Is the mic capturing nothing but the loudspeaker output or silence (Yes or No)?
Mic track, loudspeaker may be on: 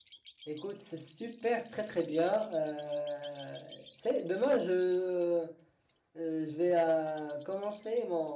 No